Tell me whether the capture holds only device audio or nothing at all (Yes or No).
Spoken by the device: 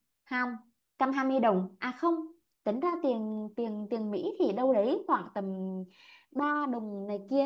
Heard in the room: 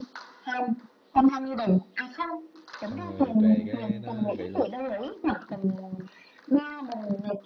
No